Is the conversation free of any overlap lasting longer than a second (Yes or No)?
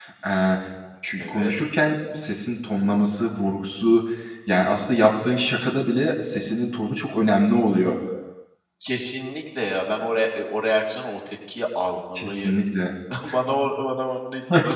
Yes